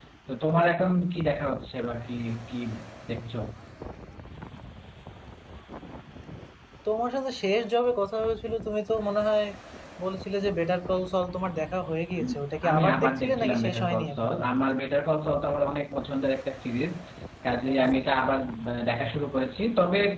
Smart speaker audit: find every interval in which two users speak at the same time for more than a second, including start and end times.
12.7-14.3

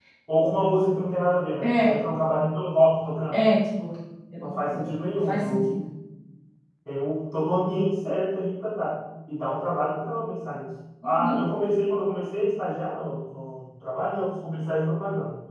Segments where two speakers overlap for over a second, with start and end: 4.4-5.8

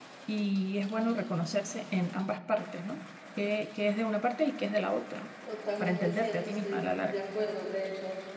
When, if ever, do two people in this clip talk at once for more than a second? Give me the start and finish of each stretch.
5.8-7.2

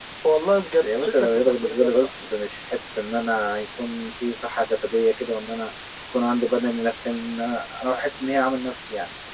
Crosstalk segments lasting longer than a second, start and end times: 0.8-2.3

